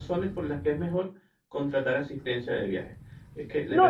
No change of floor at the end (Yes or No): No